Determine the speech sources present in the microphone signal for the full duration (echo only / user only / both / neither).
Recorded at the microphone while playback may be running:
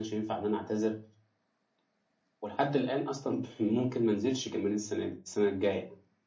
echo only